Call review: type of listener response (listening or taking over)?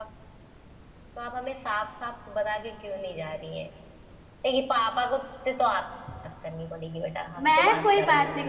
taking over